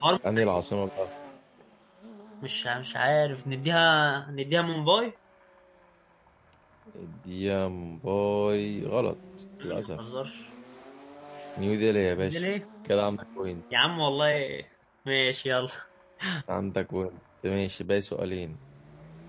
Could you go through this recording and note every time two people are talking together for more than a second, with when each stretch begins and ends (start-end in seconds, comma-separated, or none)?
none